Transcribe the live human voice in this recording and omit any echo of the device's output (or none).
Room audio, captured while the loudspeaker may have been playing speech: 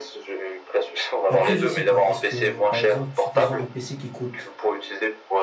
Après, je sais pas. Est-ce que, par exemple, supposons un PC qui coûte